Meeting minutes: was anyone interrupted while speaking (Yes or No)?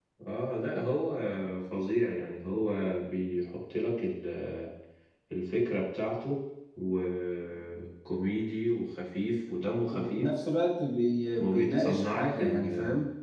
Yes